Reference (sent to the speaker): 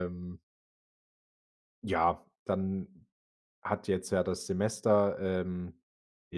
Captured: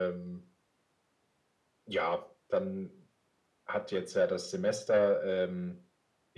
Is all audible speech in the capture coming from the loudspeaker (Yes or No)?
Yes